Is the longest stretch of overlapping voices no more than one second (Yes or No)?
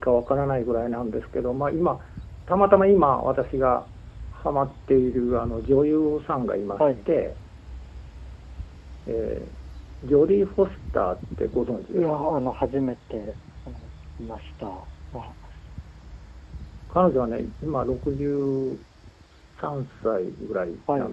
Yes